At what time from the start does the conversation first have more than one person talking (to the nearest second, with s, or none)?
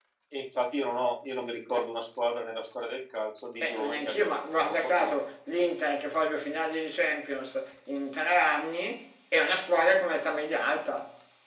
4 s